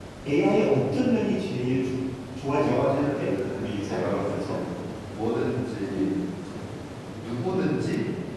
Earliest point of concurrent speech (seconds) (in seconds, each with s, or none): 2.6 s